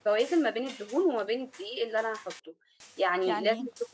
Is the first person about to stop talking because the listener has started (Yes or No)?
No